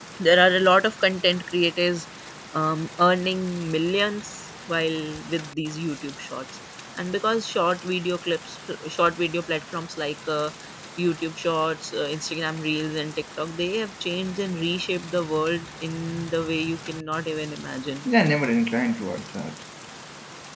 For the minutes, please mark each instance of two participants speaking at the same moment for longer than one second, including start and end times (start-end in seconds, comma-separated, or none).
none